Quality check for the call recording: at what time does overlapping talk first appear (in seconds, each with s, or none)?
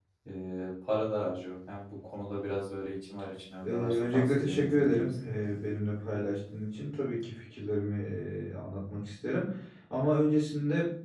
3.6 s